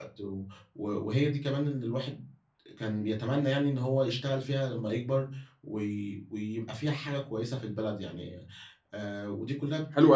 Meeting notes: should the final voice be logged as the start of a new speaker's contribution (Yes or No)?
Yes